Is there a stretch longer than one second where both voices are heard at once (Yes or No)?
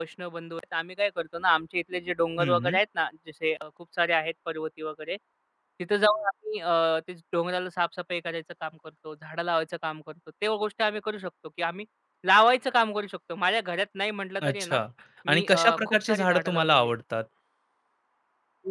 Yes